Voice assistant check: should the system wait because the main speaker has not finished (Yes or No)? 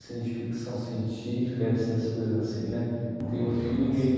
Yes